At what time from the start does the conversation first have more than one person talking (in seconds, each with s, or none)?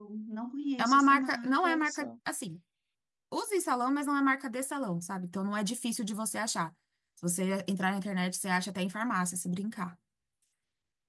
0.8 s